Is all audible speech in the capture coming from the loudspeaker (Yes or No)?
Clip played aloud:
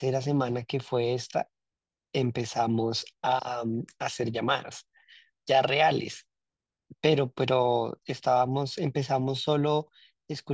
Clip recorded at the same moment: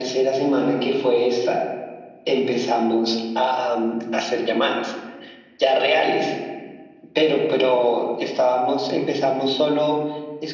Yes